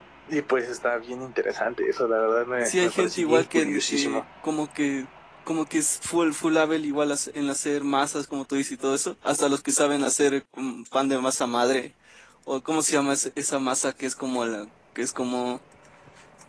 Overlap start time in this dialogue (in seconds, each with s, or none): 2.6 s